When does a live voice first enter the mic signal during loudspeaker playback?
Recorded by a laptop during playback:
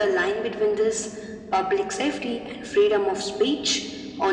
none

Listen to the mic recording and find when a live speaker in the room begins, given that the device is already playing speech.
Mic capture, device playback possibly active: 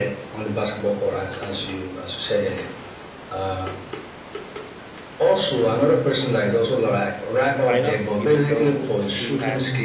7.5 s

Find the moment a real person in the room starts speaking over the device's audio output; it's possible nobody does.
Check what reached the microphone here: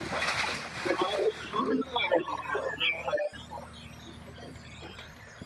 none

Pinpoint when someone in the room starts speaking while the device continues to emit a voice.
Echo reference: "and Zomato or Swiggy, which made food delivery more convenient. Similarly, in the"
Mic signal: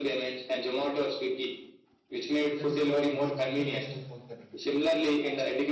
2.5 s

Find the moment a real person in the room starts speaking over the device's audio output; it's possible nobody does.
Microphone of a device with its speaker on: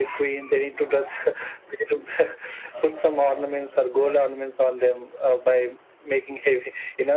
none

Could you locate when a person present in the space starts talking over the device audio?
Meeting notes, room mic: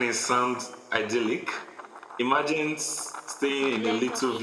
3.5 s

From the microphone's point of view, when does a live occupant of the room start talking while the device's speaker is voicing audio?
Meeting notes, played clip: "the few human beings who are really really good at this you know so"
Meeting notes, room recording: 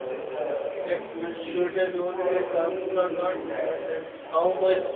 0.8 s

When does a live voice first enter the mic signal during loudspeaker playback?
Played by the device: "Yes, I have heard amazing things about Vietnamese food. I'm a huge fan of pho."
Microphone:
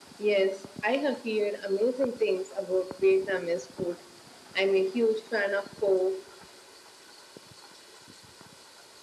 none

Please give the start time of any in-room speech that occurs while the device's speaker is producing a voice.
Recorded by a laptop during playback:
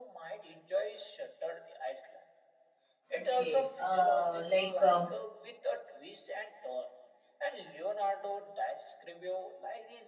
3.2 s

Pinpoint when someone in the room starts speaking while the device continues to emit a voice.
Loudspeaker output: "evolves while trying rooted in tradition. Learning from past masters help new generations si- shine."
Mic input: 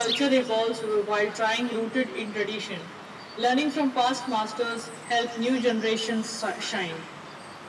none

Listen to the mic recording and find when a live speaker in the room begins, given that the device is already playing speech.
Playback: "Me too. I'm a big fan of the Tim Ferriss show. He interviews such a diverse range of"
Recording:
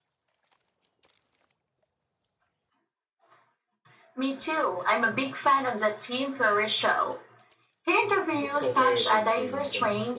8.4 s

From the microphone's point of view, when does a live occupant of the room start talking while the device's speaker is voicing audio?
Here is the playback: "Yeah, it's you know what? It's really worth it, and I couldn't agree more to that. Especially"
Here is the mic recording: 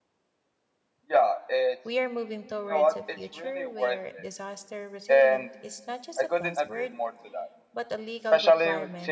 1.8 s

